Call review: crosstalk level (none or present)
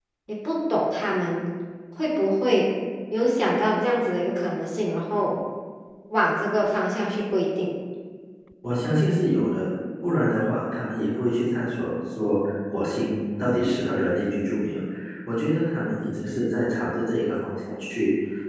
none